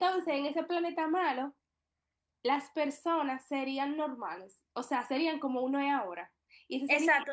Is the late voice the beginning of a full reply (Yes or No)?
Yes